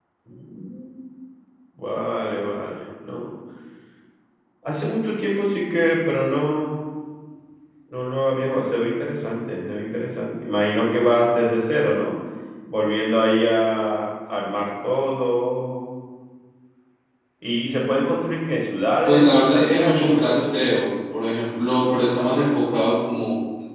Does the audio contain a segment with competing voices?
Yes, from 19.1 s

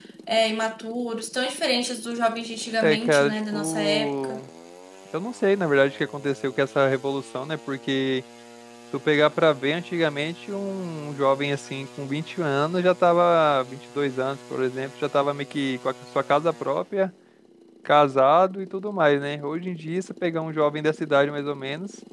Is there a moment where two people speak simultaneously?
Yes, from 2.8 s

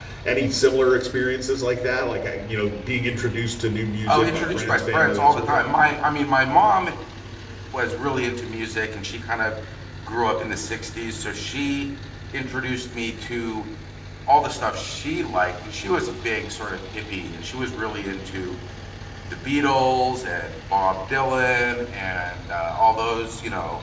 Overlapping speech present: Yes, from 4.1 s

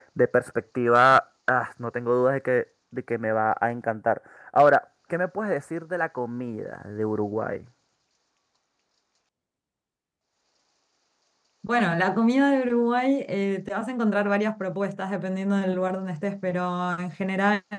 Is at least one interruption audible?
No

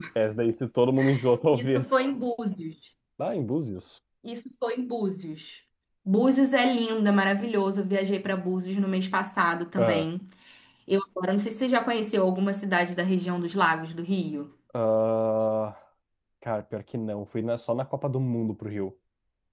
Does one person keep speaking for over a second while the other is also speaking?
No

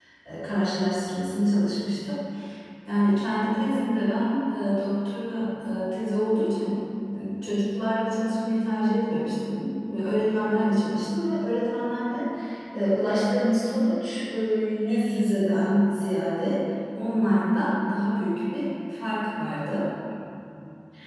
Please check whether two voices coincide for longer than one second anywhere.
No

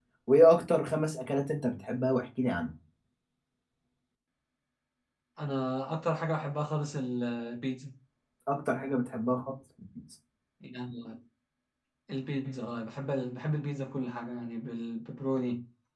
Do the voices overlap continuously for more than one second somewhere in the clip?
No

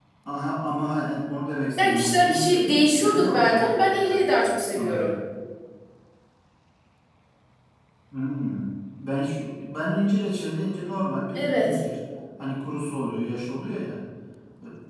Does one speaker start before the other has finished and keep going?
Yes, from 1.8 s

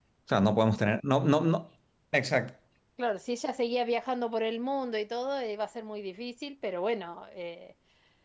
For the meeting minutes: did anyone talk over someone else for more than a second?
No

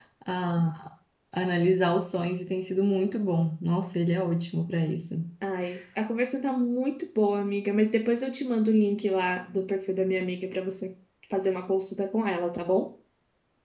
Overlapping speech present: No

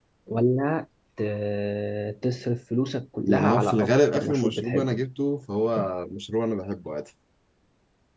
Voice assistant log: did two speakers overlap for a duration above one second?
Yes, from 3.3 s

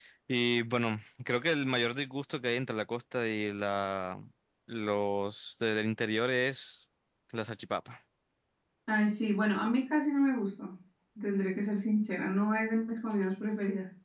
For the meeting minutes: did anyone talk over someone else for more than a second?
No

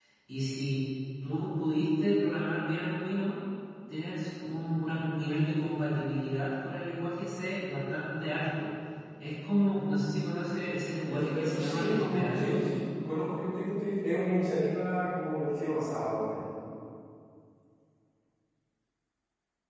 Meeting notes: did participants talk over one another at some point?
Yes, from 11.1 s

